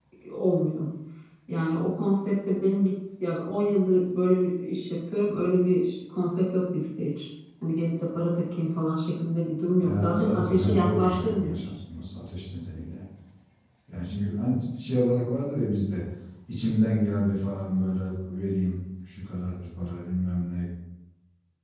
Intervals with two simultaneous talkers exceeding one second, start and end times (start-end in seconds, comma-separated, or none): 9.8-11.7